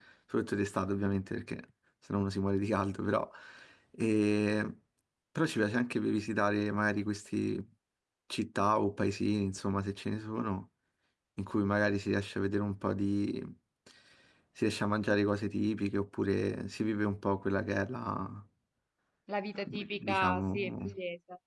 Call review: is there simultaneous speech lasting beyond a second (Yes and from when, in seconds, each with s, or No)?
Yes, from 19.7 s